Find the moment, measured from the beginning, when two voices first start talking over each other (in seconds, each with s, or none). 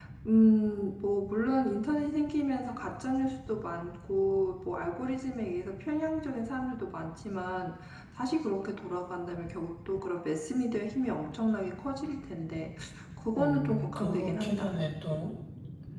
13.3 s